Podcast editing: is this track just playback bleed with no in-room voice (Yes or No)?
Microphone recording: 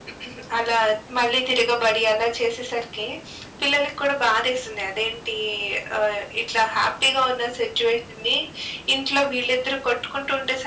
Yes